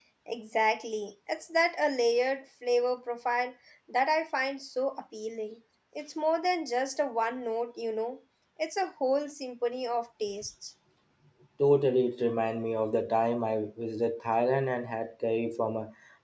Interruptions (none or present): none